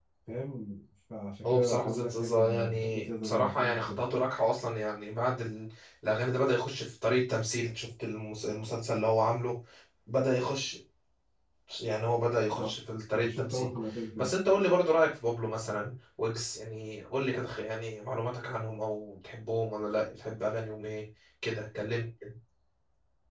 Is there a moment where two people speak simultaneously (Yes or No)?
Yes